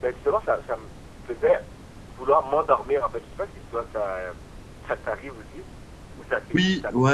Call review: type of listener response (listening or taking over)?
taking over